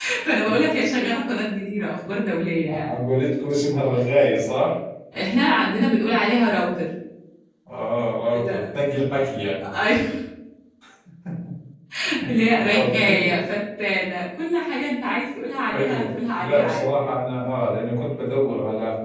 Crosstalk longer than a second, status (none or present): present